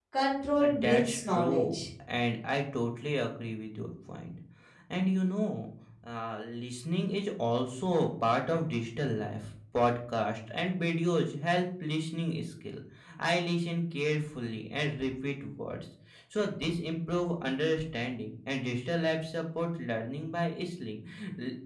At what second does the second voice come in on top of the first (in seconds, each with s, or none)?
0.6 s